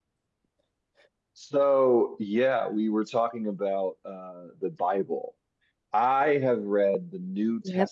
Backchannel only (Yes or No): Yes